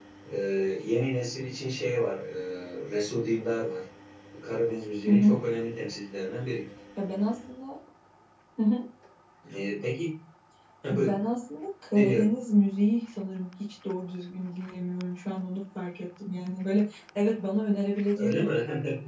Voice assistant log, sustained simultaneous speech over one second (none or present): none